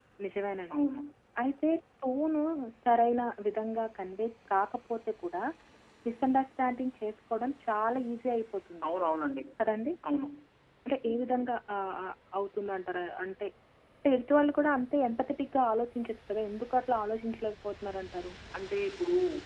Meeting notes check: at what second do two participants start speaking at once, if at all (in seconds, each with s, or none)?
none